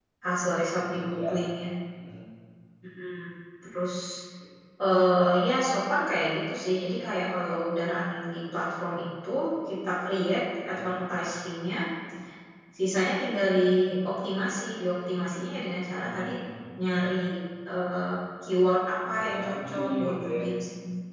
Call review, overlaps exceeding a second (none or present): present